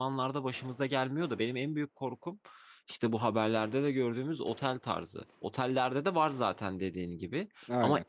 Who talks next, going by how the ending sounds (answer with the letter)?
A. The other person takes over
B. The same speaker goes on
B